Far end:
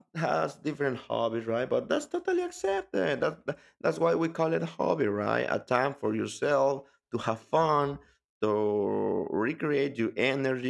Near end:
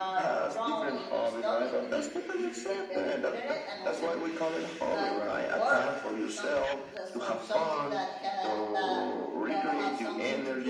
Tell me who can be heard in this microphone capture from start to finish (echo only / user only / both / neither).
both